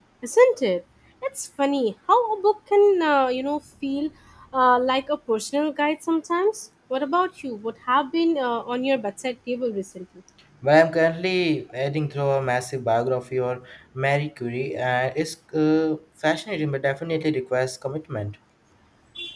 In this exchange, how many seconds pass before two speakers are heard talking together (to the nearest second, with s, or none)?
none